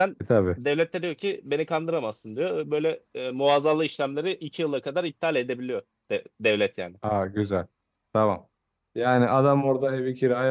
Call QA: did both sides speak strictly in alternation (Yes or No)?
Yes